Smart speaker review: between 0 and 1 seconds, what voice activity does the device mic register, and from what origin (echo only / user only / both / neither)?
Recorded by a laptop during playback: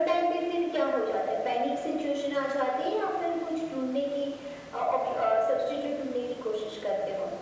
echo only